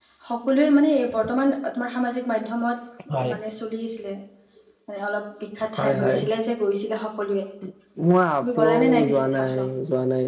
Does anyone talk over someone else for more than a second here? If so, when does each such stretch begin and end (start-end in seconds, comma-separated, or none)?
8.4-9.7